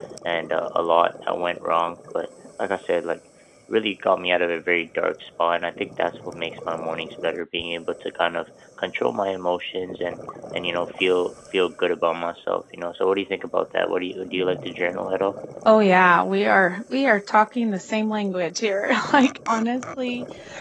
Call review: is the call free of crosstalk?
Yes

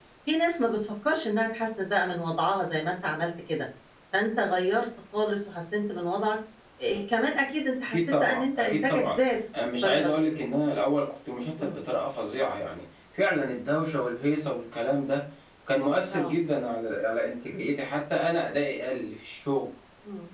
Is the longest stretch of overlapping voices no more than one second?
No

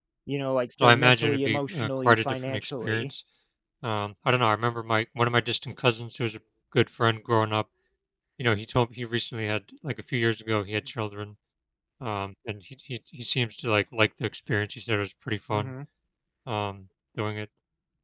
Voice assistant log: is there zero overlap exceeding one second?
No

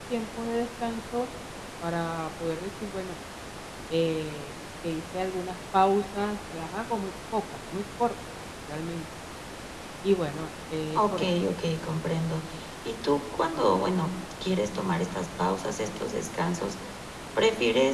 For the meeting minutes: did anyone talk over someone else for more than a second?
No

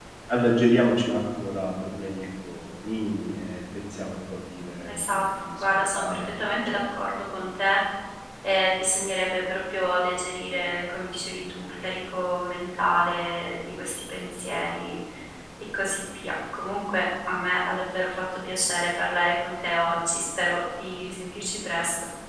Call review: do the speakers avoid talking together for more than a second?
No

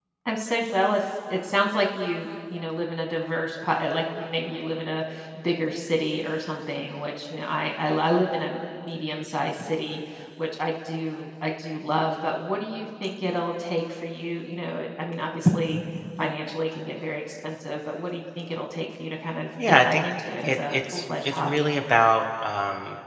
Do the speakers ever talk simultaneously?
Yes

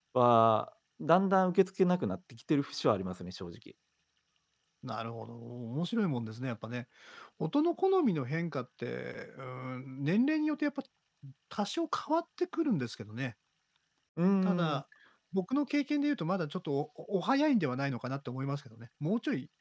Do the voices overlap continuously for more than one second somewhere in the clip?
No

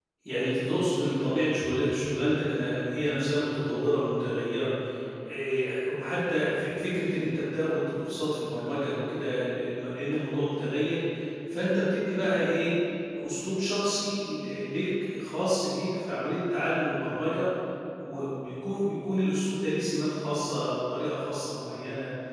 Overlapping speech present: No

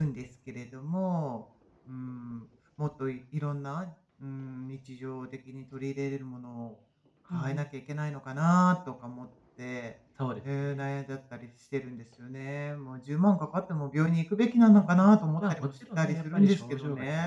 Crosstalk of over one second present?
Yes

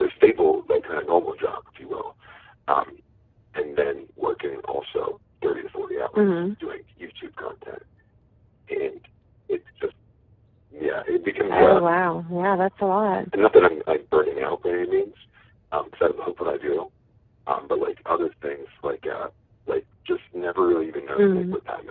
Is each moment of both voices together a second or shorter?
Yes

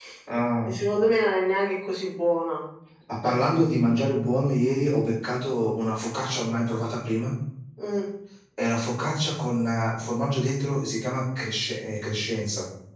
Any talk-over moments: No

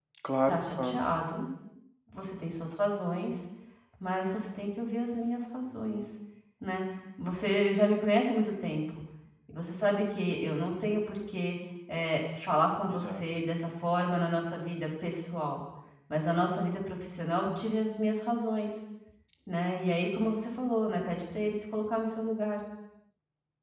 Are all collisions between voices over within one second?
Yes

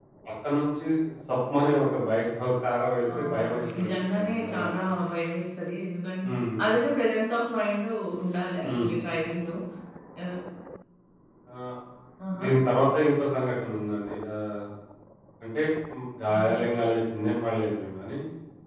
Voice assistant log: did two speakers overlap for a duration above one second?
Yes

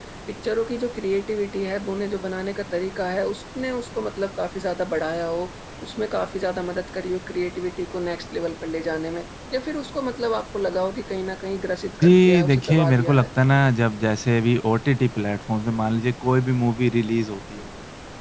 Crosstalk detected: Yes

